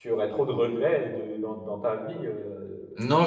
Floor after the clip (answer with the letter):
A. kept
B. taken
B